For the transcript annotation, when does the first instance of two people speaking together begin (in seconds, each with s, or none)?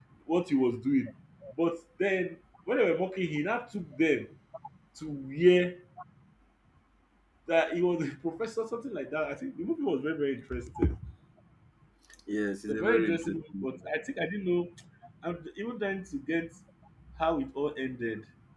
12.7 s